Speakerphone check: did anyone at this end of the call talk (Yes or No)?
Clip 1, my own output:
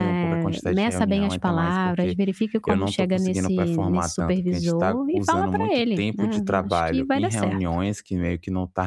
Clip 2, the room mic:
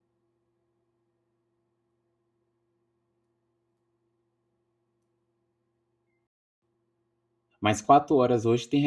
Yes